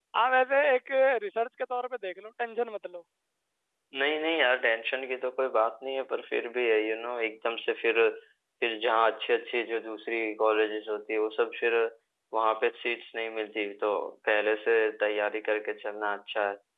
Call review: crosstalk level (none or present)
none